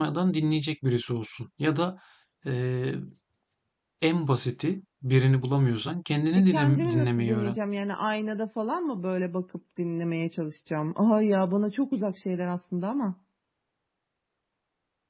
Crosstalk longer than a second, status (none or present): present